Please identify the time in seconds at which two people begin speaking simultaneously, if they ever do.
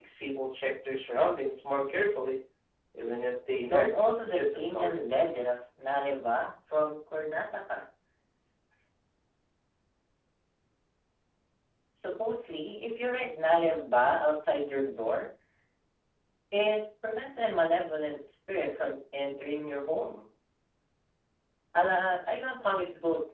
3.7 s

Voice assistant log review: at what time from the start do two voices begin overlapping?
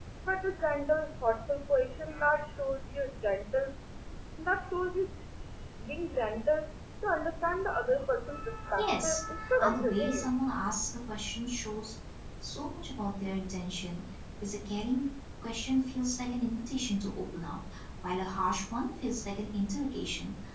8.8 s

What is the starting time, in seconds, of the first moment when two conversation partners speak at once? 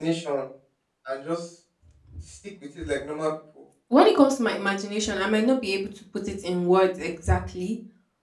none

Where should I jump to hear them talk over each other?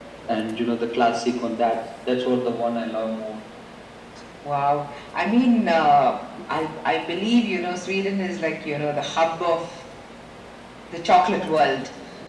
none

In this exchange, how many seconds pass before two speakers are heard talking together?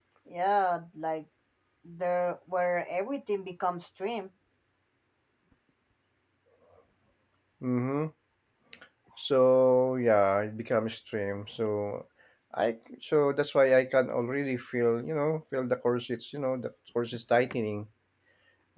none

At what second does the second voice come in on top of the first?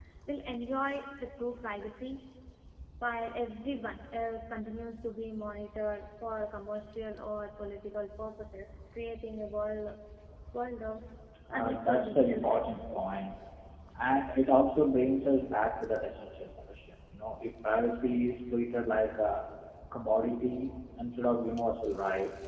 11.5 s

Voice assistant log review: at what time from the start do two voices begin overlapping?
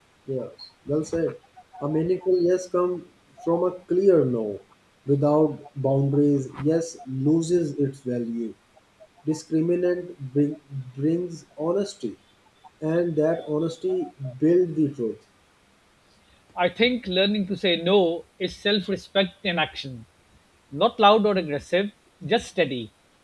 none

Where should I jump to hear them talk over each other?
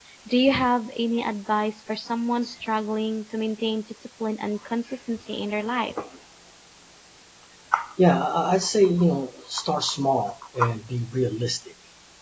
none

